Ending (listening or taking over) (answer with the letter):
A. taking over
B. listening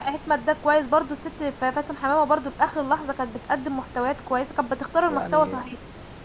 A